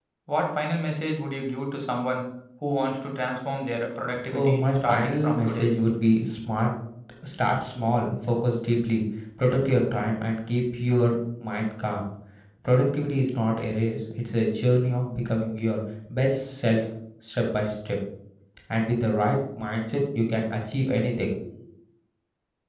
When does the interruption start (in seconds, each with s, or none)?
4.3 s